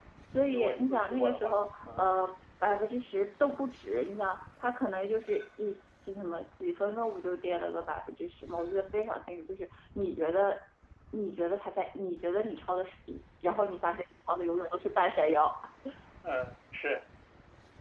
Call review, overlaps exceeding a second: present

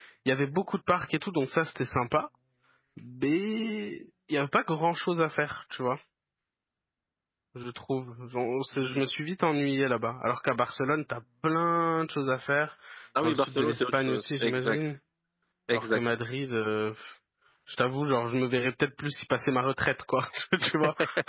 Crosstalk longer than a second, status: present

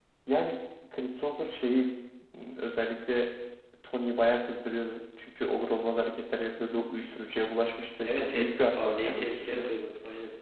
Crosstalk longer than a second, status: present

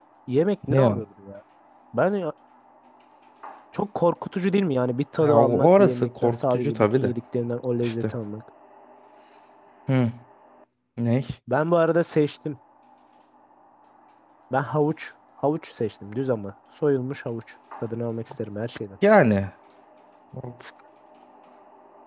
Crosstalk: present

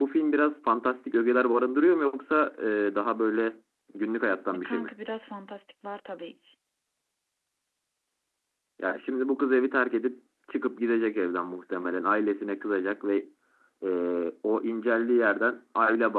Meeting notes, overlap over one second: none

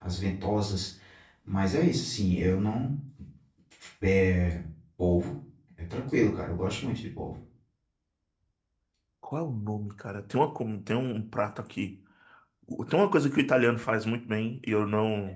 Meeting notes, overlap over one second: none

